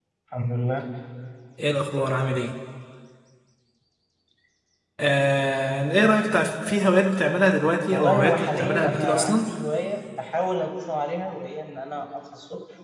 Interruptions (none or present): present